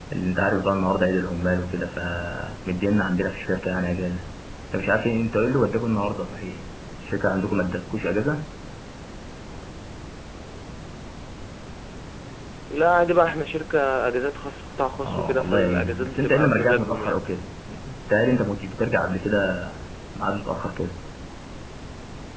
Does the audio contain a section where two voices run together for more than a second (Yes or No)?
Yes